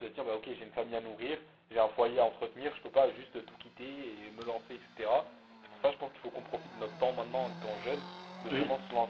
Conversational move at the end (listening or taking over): listening